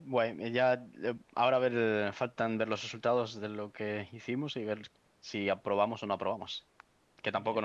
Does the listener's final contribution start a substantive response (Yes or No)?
No